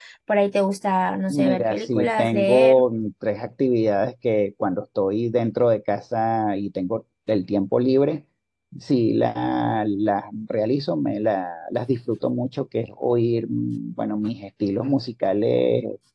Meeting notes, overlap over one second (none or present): present